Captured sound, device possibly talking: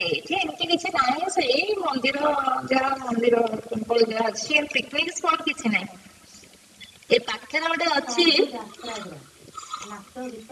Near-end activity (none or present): present